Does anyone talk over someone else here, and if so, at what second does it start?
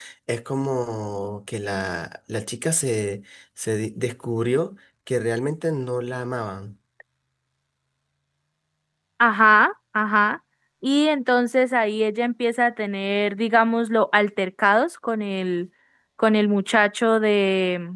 none

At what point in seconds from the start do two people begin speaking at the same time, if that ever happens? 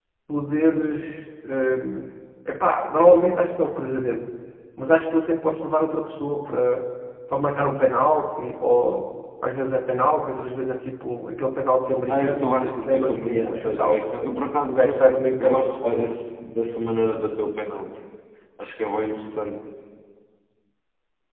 12.1 s

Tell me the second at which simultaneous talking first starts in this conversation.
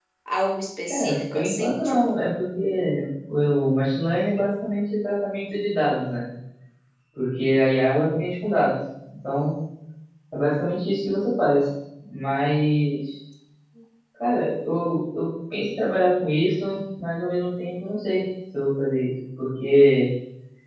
0.8 s

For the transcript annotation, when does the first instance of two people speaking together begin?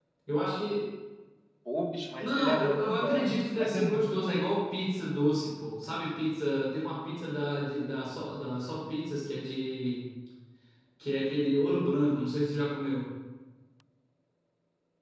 2.2 s

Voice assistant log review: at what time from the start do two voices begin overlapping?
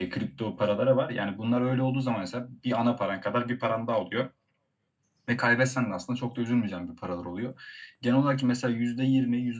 none

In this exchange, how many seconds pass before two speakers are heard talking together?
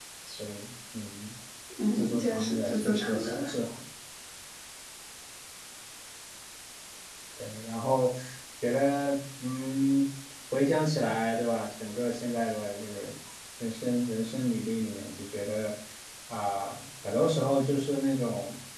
1.9 s

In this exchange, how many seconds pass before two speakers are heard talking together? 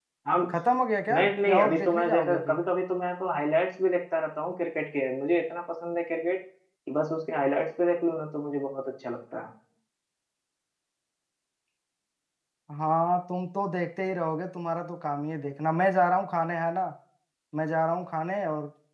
1.1 s

